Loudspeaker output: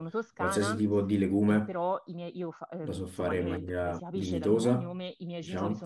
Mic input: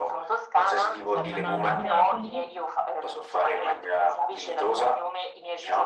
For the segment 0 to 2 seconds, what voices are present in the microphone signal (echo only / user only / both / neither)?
both